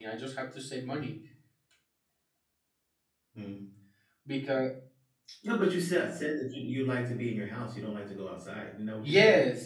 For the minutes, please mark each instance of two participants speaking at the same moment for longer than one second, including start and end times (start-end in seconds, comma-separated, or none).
none